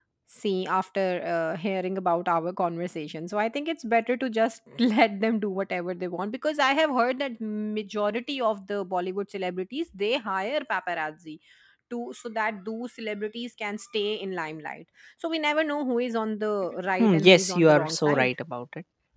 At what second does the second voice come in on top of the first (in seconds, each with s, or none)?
17.0 s